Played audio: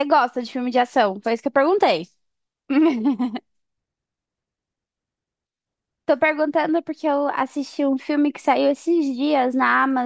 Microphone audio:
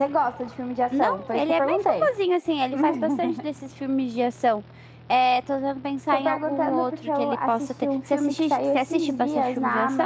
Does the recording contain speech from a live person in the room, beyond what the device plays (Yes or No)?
Yes